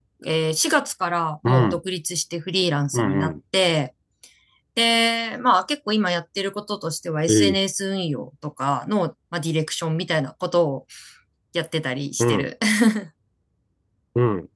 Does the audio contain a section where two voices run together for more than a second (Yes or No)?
No